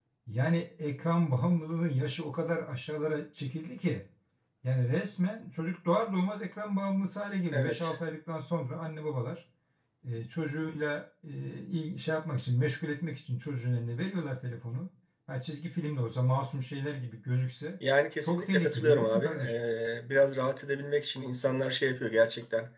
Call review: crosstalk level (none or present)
present